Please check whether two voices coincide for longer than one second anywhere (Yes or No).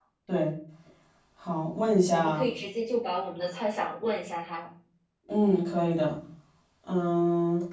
No